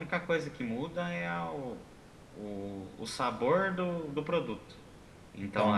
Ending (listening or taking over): taking over